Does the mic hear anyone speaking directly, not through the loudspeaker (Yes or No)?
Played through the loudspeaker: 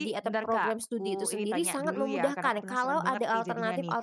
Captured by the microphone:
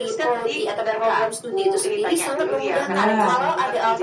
Yes